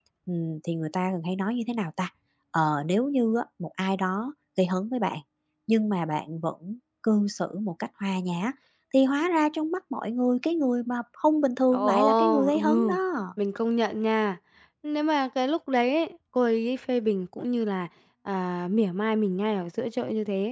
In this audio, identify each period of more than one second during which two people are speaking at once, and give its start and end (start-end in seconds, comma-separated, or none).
11.7-13.0